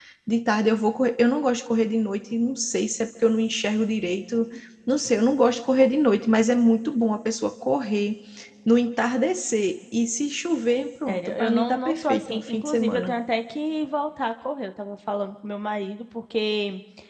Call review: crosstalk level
present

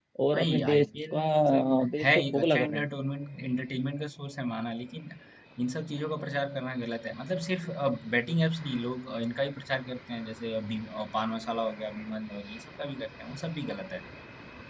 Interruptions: present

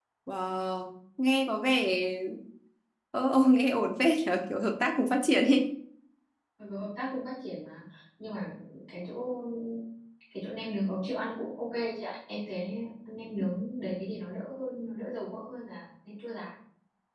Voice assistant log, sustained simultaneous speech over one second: none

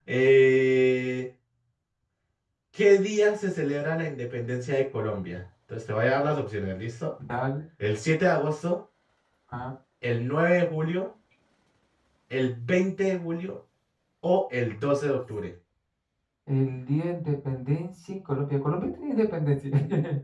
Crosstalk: none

